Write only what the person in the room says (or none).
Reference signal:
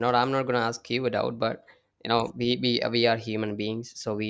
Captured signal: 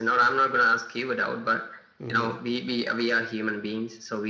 hmm